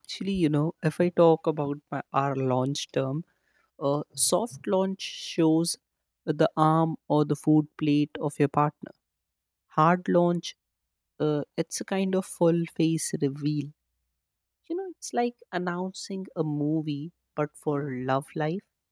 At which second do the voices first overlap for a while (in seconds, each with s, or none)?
none